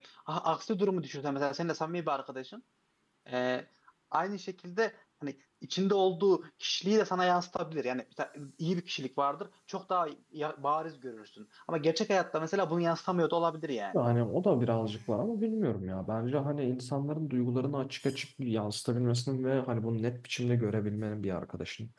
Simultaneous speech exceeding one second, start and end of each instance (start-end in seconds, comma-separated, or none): none